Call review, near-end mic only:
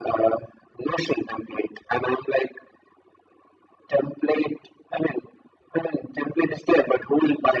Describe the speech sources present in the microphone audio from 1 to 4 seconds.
echo only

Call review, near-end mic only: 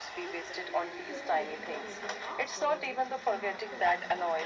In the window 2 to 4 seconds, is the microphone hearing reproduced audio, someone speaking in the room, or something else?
both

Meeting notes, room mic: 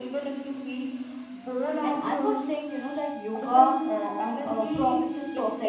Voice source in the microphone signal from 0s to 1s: echo only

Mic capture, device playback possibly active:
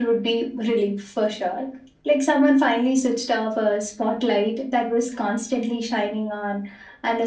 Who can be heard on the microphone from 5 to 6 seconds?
echo only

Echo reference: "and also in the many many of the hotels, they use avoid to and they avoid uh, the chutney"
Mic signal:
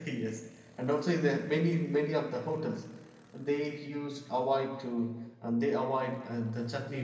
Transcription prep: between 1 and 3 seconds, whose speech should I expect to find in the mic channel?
echo only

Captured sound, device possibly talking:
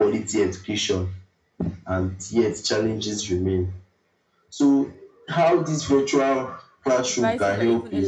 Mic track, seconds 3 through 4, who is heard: echo only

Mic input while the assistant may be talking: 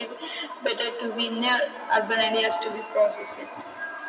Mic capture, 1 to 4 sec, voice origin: echo only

